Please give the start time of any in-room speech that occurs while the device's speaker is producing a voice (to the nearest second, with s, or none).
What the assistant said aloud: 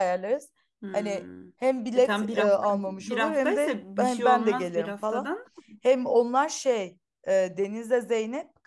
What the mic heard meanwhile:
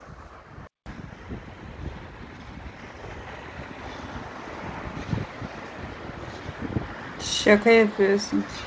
7 s